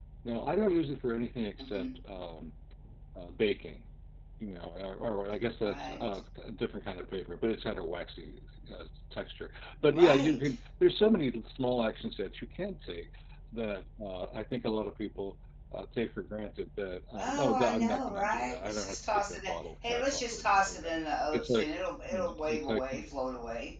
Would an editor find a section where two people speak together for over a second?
Yes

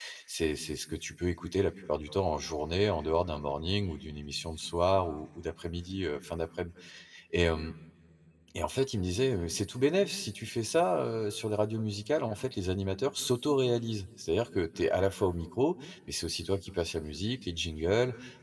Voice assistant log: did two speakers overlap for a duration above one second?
No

